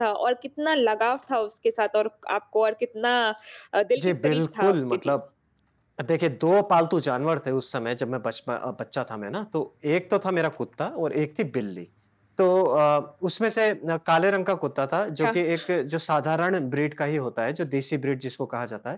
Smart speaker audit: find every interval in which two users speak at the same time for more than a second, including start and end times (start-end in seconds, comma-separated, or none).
4.0-5.2